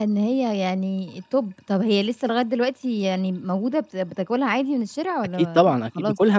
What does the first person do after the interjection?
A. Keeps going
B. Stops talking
B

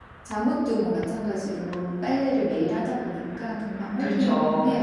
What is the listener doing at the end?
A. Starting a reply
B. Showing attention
A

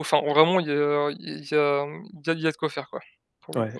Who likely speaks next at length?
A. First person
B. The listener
B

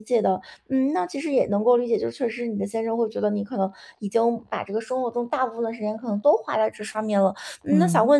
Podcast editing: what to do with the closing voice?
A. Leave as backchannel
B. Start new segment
A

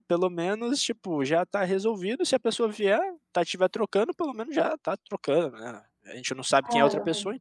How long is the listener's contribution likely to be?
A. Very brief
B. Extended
A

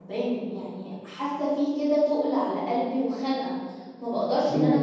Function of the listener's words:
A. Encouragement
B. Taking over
B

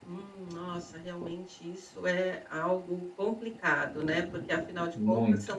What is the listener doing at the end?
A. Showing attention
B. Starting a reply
A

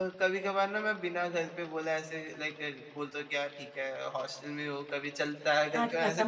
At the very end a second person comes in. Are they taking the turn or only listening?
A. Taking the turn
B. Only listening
A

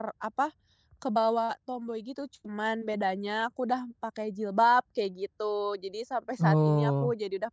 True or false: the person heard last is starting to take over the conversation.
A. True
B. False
B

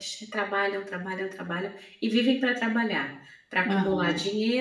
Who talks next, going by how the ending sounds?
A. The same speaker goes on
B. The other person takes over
A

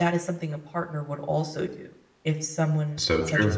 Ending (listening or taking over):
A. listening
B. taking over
A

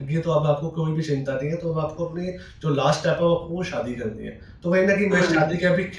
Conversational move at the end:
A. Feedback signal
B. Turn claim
A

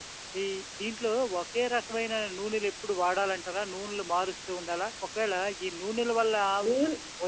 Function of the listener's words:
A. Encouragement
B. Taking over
A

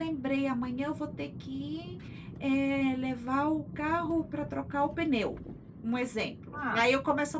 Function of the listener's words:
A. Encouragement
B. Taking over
A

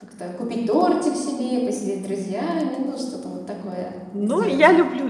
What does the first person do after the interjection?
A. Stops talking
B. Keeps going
A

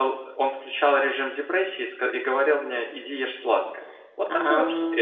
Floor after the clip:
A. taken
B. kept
B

